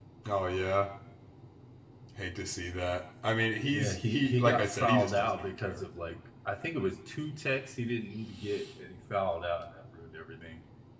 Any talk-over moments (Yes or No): Yes